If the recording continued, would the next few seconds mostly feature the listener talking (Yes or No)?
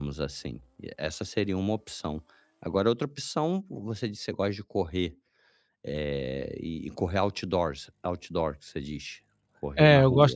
Yes